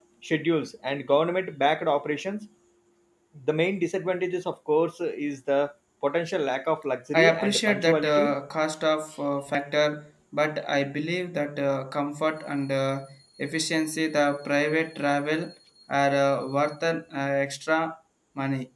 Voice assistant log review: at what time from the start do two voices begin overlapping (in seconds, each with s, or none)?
7.1 s